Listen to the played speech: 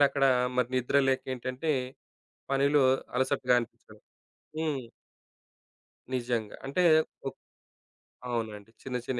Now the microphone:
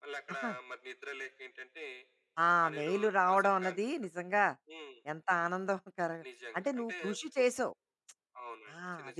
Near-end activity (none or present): present